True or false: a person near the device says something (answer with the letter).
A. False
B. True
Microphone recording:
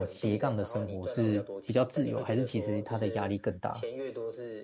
B